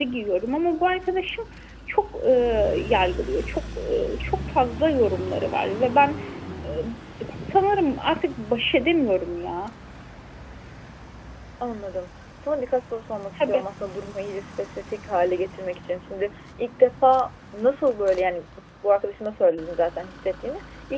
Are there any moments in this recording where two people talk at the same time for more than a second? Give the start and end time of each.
none

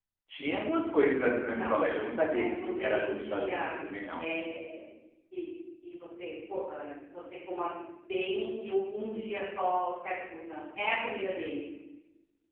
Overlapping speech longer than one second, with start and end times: 2.3-3.7

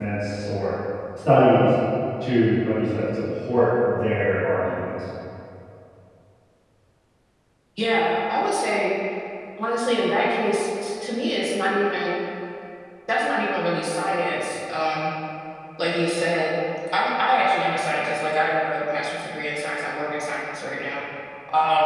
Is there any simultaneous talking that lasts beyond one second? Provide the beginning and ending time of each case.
none

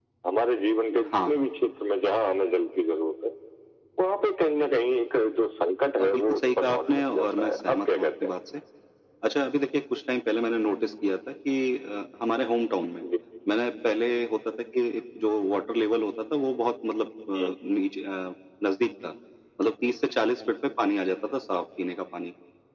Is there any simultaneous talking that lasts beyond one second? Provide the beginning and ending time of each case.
6.0-8.1

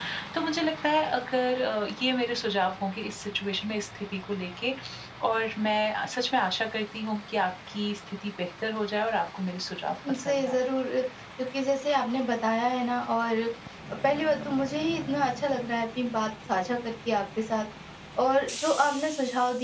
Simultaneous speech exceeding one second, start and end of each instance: none

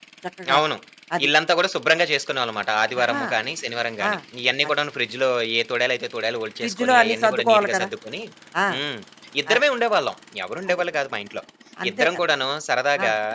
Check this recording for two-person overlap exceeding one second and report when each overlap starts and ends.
6.6-7.9

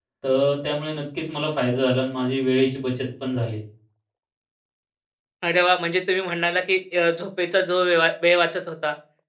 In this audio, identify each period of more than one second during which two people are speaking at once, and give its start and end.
none

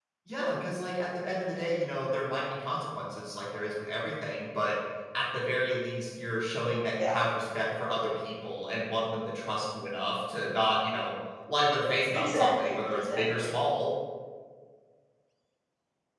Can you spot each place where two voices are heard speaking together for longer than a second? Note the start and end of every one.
12.1-13.5

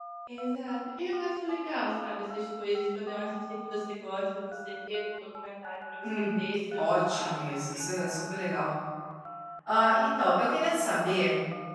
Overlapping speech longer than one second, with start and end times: 6.8-8.2

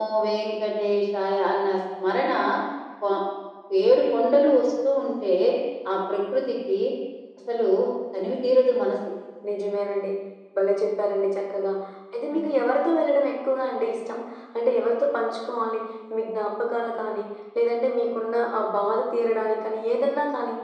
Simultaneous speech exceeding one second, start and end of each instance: none

